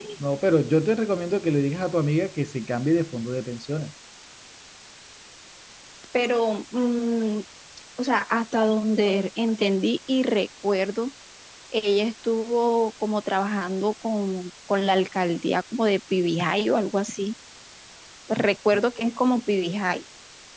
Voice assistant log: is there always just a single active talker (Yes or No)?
Yes